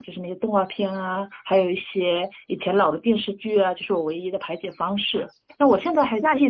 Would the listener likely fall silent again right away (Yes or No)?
Yes